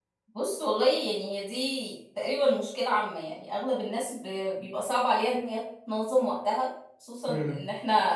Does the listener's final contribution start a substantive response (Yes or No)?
No